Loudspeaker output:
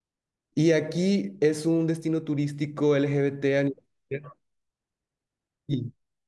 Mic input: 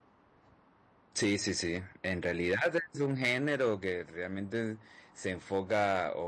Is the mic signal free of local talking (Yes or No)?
No